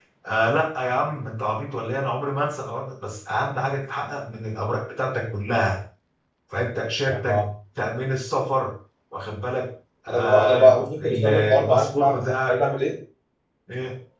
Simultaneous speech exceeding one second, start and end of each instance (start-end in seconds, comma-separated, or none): 10.1-12.6